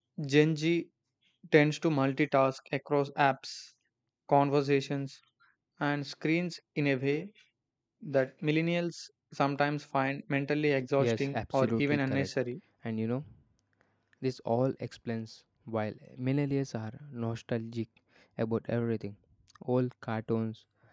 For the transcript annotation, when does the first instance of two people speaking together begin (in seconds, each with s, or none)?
11.0 s